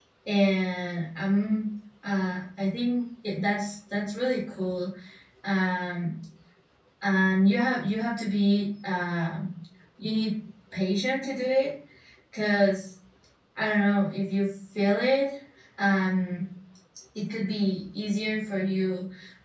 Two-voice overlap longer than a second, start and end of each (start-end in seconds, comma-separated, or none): none